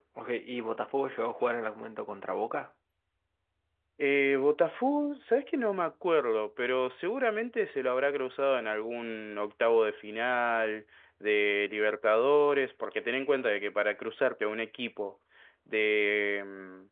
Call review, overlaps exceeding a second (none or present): none